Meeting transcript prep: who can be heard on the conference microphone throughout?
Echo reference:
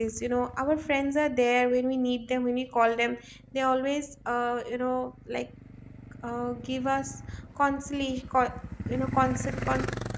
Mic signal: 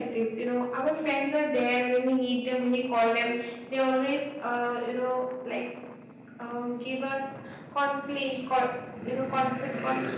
echo only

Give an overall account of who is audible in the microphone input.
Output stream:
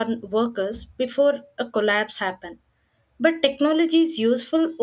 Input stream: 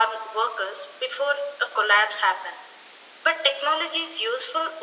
echo only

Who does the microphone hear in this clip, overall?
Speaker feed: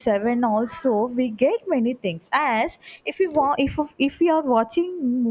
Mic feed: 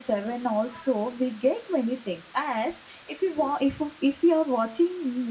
echo only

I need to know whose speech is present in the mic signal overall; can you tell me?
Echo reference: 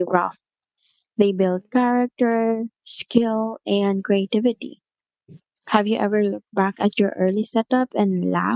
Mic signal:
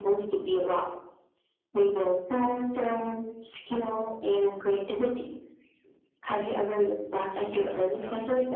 both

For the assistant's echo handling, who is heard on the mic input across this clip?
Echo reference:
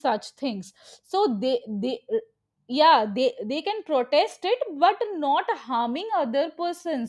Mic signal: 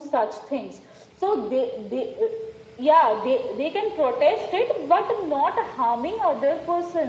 echo only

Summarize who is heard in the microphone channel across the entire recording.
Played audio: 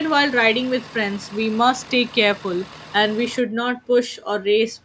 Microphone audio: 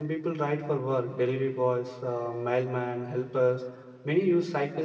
user only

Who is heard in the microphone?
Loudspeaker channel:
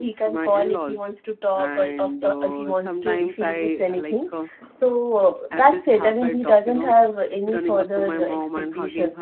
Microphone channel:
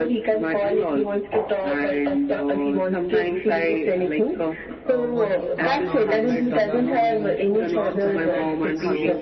both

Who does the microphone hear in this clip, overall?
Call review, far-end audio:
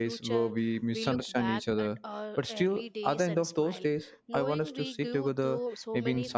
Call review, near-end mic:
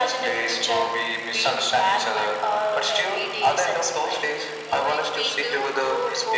echo only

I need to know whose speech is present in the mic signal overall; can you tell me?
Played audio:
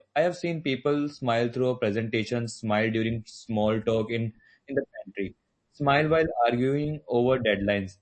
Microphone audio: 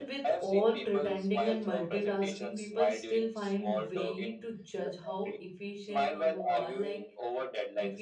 both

